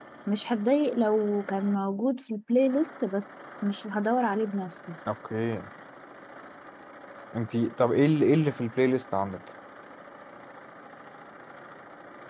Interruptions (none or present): none